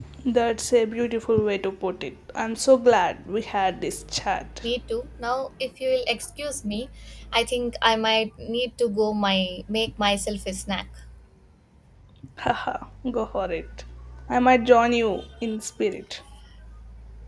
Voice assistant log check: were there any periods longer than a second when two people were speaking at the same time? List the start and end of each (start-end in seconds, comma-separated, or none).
none